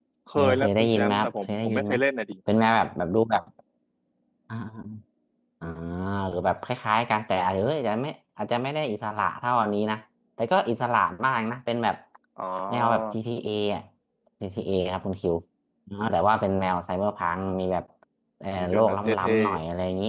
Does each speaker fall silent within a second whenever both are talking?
No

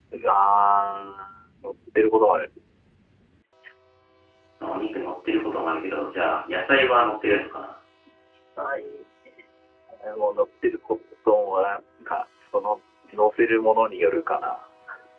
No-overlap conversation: Yes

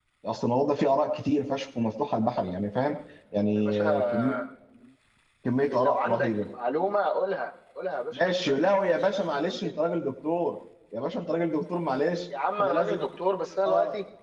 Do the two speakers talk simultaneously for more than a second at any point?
Yes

